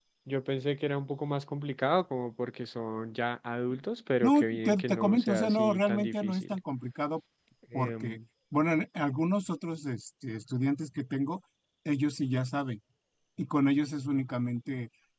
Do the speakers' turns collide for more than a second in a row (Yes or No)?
Yes